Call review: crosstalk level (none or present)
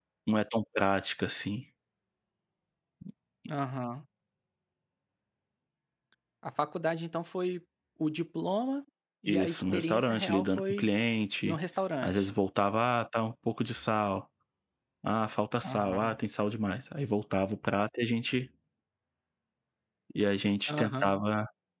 present